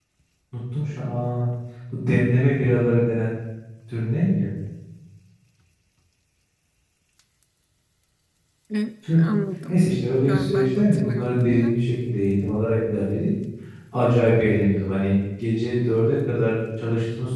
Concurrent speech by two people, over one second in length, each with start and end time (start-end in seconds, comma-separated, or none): 10.3-11.8